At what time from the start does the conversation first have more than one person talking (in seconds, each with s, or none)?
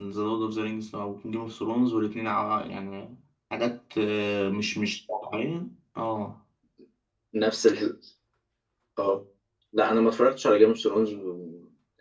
none